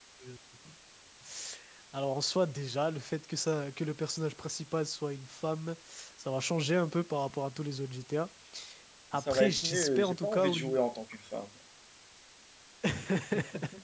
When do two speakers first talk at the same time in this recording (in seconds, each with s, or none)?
9.1 s